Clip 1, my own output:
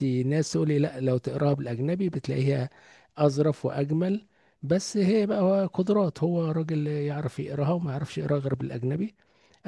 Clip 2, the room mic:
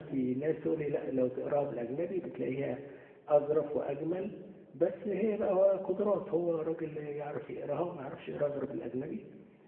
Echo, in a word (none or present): present